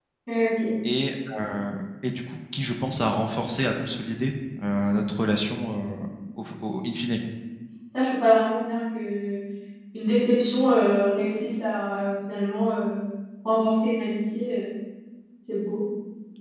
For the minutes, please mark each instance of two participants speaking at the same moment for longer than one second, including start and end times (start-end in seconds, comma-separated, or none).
none